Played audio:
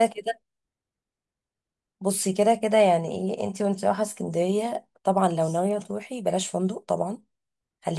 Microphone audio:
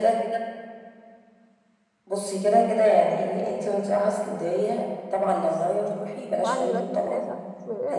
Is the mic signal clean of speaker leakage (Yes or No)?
No